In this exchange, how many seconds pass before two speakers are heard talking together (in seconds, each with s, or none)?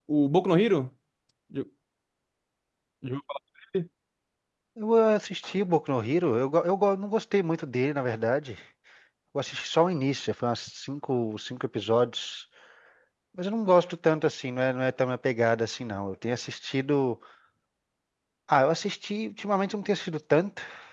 none